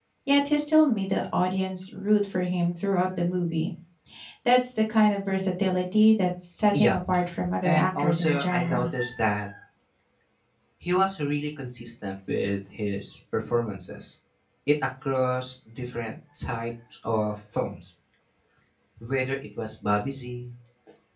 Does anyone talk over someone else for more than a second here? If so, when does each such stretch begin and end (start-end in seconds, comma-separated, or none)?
7.6-8.9